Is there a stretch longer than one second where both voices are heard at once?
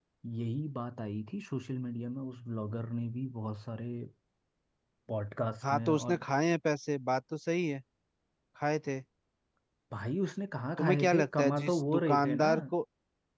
Yes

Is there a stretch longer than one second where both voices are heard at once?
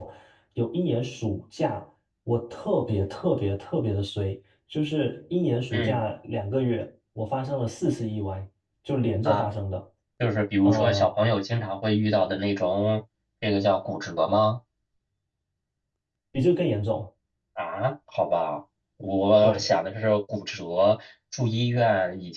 No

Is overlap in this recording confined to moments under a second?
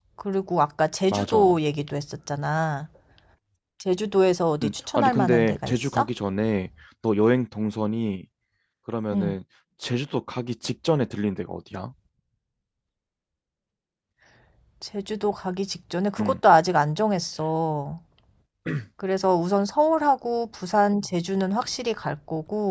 No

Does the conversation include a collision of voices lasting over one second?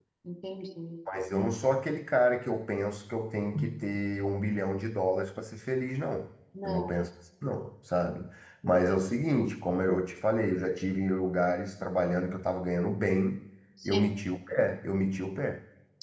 No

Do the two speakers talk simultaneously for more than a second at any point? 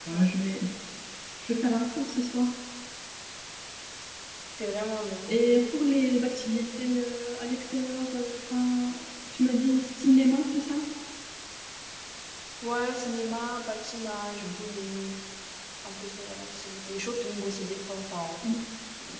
No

